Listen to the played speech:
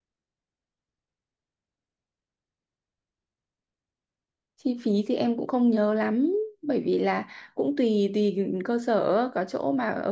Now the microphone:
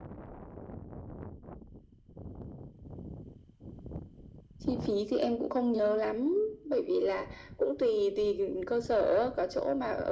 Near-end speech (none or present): none